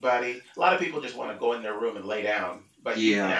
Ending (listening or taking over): listening